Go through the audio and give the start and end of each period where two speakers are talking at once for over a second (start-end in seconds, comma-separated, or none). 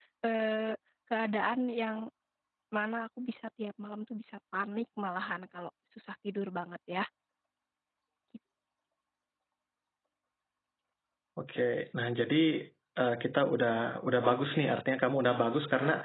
none